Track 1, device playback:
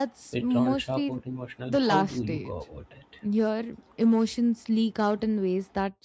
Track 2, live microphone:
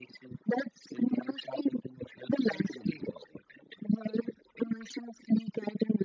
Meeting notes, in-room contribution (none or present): none